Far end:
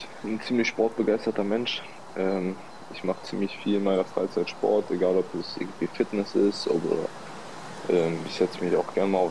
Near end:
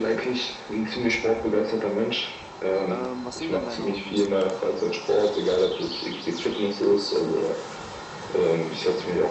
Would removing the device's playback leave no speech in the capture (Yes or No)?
No